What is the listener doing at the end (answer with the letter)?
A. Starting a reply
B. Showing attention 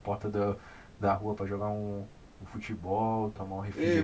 A